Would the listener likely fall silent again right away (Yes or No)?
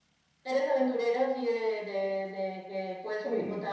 No